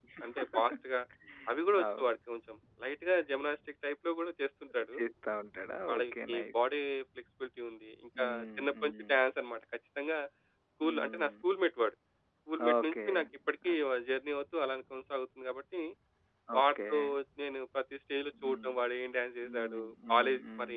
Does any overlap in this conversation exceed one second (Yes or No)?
Yes